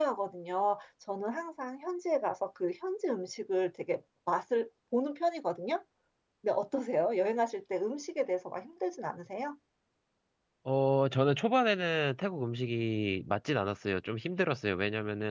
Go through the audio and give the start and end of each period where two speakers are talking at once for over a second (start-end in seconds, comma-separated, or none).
none